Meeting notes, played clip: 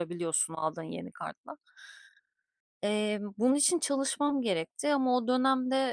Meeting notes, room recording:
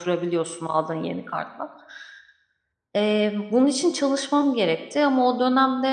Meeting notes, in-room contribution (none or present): none